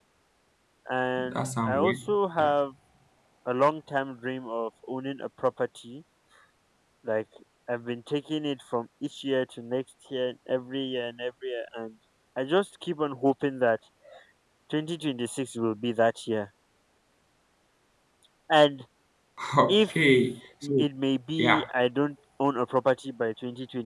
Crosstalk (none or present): present